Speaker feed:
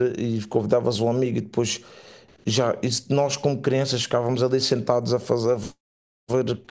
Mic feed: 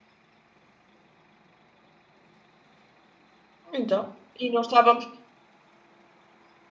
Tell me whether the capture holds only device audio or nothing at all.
No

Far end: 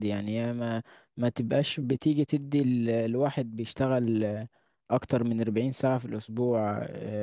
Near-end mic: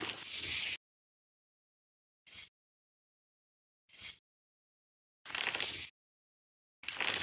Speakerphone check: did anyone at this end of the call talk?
No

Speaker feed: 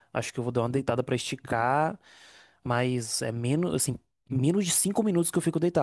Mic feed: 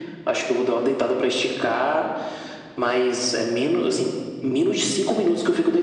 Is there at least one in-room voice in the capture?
No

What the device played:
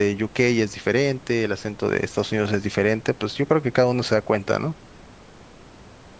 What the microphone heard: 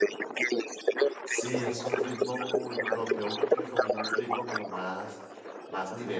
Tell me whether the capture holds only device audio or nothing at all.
No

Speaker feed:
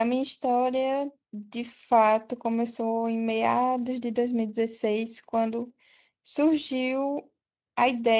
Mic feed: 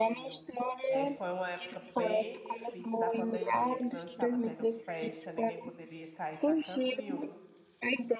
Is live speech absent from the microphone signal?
No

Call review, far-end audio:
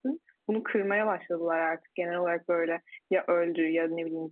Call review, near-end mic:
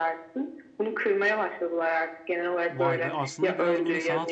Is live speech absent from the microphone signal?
No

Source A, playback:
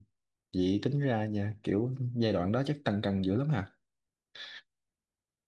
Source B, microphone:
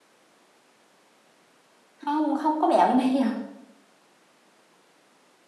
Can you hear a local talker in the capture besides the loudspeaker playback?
Yes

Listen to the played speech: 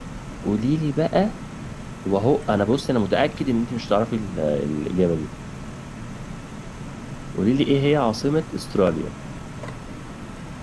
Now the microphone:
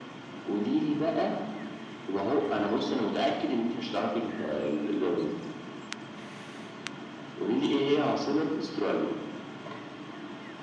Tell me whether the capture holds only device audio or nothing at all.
Yes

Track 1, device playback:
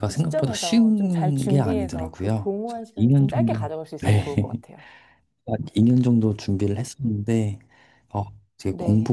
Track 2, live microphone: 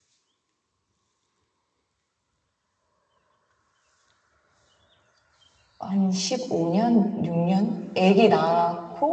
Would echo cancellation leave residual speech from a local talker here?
Yes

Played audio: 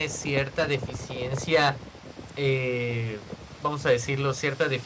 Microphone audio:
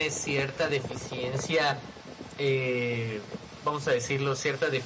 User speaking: No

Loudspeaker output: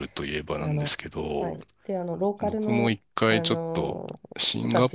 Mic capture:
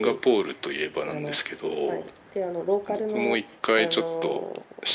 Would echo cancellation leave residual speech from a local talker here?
No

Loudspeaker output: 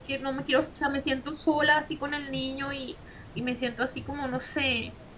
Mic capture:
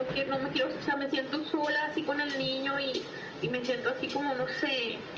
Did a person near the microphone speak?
No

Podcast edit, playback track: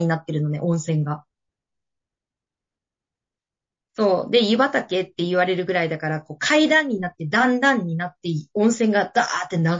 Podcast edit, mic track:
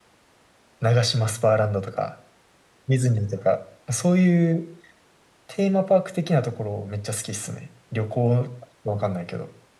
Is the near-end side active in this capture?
Yes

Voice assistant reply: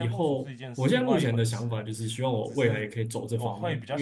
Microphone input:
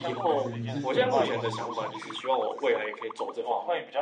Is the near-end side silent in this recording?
No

